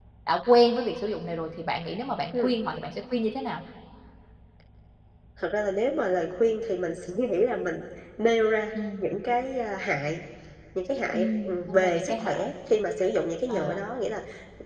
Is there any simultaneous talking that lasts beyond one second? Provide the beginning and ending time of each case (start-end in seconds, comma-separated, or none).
11.1-12.3